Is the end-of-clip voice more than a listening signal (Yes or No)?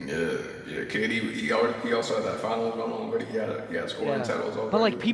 Yes